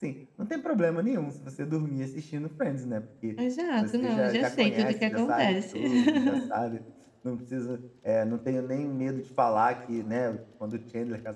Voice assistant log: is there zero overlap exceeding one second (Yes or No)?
No